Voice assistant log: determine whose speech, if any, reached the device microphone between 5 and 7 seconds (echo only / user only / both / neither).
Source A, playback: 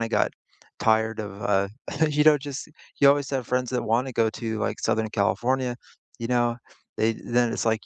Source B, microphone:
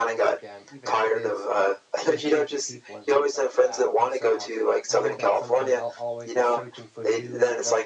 both